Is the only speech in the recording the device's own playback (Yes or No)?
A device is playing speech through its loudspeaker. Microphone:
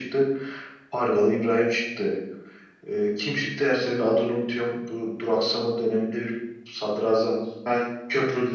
Yes